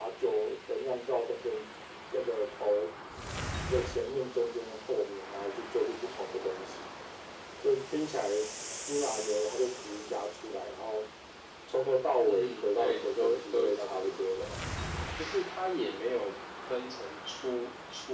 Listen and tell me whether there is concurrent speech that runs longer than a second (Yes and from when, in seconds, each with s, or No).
Yes, from 12.3 s